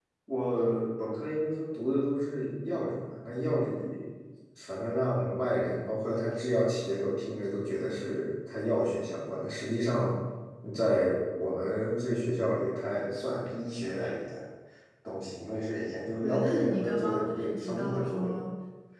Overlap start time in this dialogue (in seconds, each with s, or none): 16.2 s